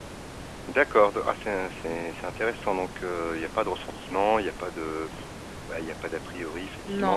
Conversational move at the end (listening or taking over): listening